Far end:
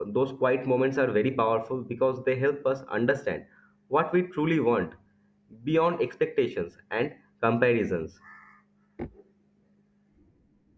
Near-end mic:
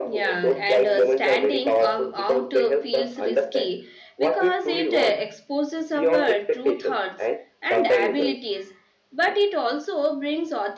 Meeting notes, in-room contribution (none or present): present